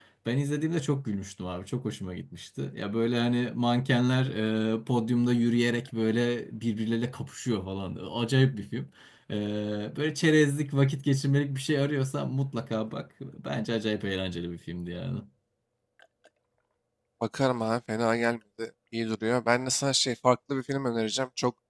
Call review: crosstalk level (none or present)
none